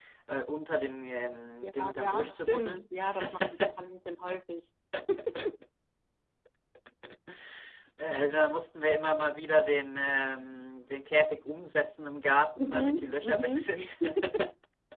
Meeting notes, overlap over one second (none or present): present